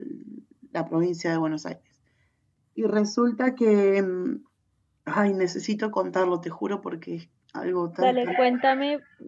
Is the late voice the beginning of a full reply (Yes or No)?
Yes